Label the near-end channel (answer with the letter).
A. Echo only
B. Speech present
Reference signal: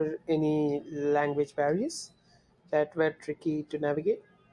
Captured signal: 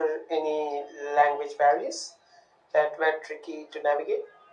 A